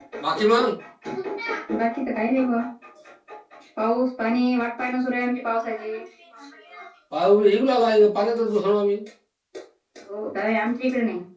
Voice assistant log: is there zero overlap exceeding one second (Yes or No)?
Yes